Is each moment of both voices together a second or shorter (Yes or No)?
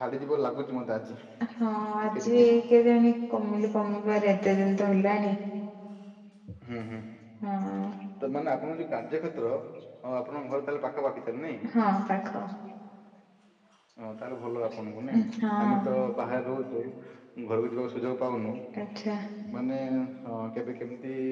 Yes